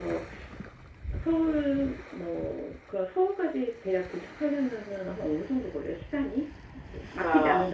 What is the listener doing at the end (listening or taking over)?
taking over